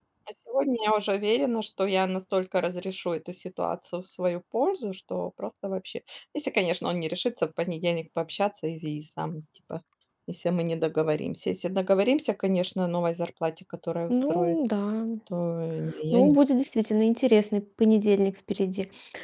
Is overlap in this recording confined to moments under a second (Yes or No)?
Yes